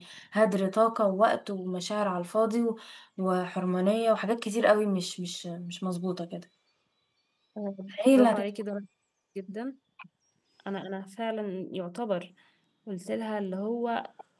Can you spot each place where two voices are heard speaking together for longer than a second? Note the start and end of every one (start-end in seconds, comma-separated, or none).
none